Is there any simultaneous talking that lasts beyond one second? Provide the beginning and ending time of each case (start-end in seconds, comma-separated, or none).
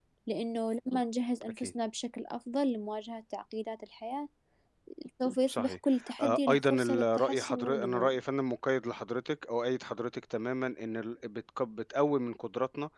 6.2-8.1